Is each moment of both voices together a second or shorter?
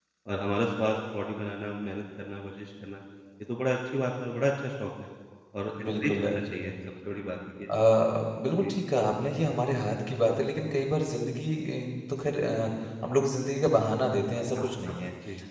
Yes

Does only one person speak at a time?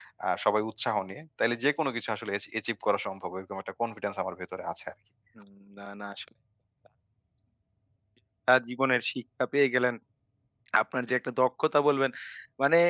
Yes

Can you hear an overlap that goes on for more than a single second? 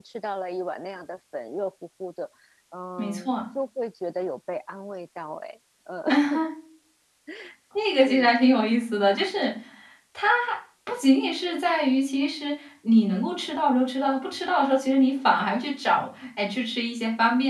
No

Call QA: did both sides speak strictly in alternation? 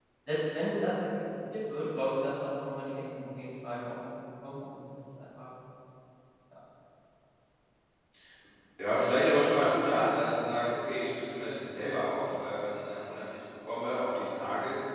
Yes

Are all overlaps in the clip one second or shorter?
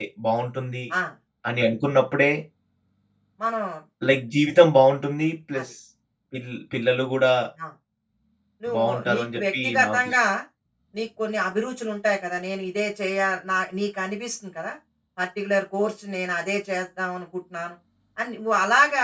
No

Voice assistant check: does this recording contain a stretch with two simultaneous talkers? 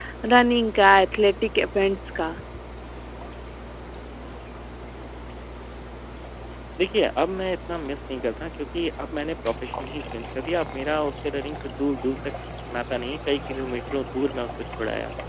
No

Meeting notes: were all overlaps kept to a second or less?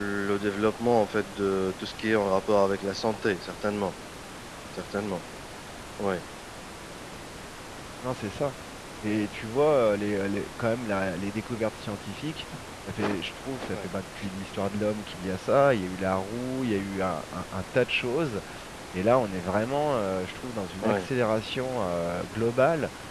Yes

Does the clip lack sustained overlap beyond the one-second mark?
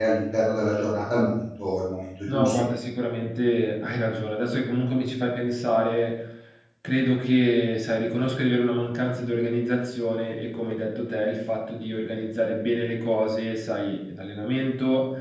Yes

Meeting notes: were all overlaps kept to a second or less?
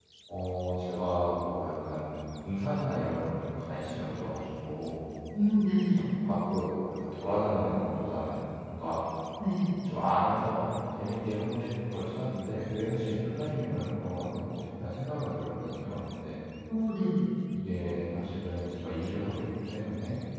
Yes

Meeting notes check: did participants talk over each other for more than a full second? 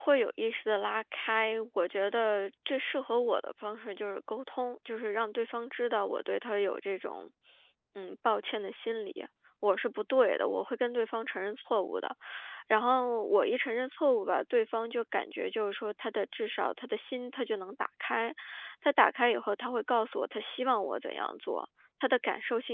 No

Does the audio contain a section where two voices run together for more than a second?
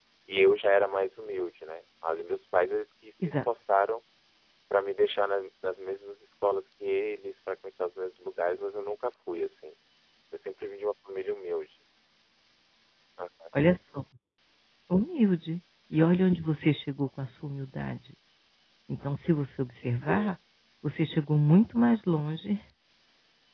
No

